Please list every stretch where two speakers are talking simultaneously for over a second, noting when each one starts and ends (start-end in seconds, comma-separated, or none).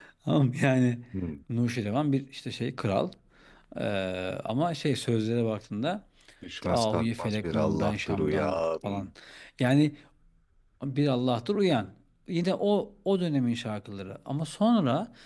6.6-9.1